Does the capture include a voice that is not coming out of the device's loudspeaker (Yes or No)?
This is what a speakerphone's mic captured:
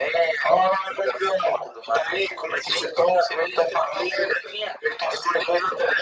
No